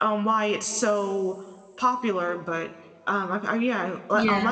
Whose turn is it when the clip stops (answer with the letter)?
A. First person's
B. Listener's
A